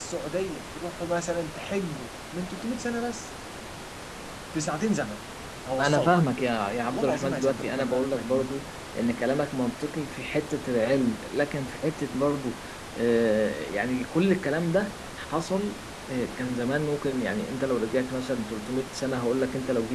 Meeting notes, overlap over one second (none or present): present